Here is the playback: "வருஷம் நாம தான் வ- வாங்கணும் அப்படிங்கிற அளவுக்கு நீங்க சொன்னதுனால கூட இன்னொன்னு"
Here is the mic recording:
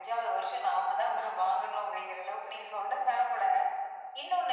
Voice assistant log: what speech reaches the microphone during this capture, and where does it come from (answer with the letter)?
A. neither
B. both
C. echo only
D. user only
C